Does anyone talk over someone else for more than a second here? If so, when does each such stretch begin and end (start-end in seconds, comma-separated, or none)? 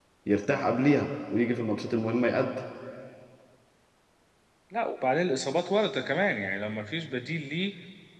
none